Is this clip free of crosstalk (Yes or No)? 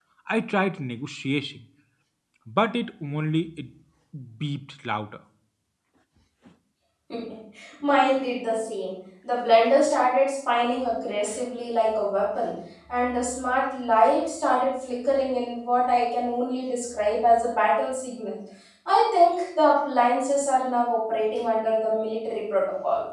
Yes